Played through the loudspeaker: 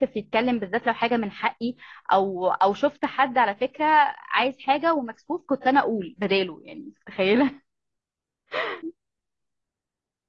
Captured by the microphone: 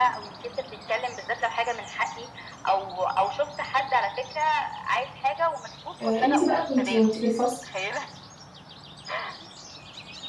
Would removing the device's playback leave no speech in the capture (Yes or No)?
No